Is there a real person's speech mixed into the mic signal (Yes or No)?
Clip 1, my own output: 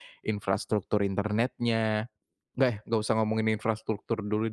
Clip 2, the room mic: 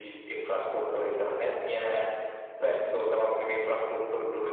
No